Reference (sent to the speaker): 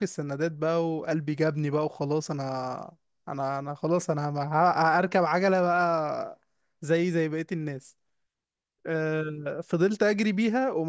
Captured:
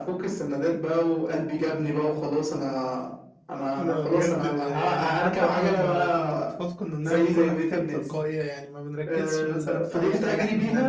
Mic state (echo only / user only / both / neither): both